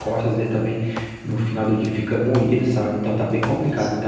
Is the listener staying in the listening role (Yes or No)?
Yes